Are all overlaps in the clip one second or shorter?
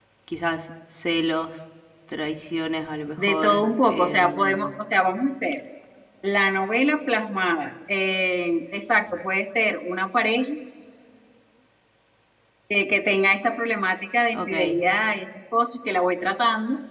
No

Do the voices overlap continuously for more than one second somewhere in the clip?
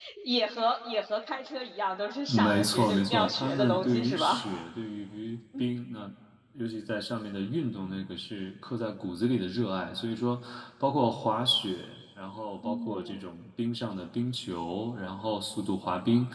Yes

